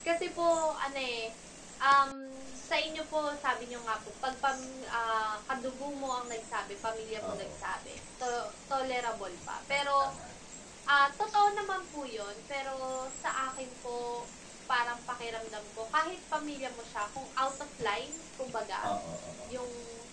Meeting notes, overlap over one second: none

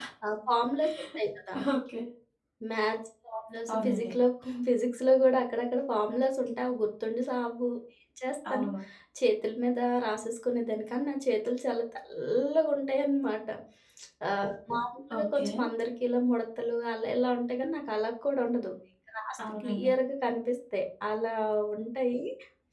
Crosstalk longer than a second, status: none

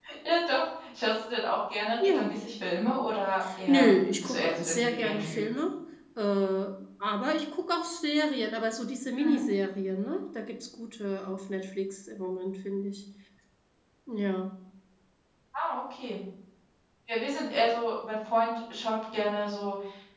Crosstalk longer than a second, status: present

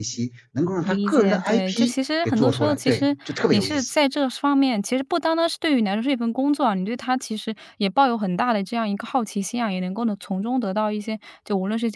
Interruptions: present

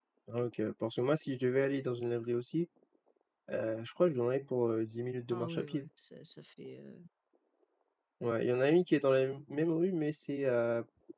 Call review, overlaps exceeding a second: none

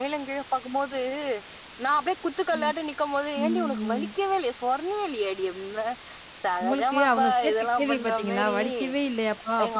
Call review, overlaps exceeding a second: present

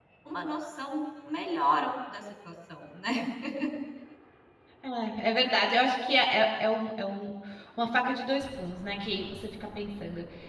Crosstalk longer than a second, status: none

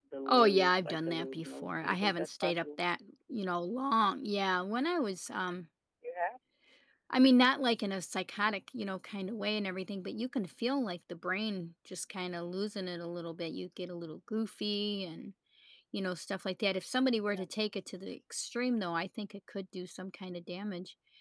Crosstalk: present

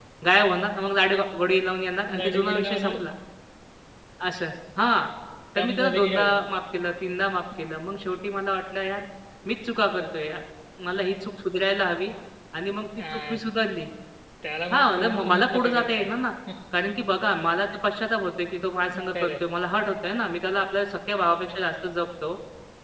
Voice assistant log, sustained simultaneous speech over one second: present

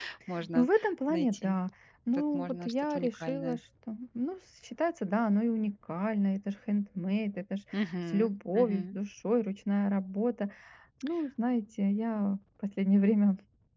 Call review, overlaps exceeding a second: present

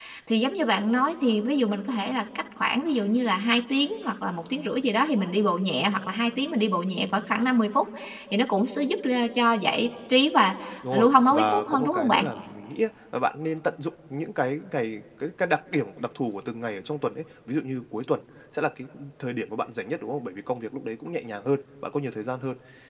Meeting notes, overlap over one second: present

